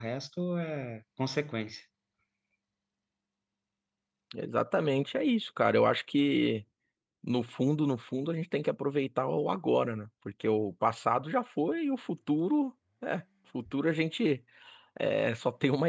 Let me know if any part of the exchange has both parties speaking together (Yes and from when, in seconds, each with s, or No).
No